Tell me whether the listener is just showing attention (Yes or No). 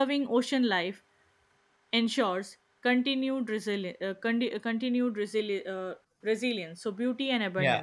No